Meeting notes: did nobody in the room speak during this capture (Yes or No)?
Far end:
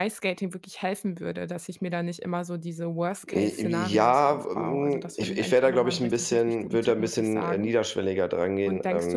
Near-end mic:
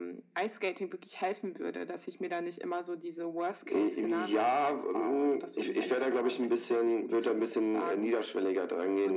Yes